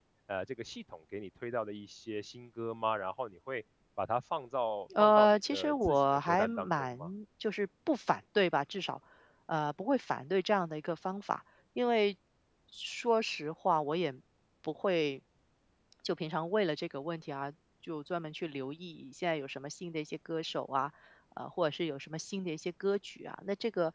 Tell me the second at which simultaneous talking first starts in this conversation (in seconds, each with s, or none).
4.9 s